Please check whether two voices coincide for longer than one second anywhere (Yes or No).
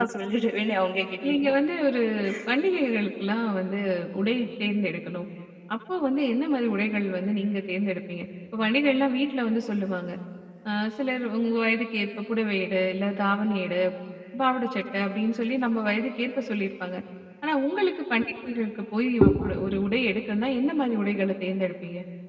No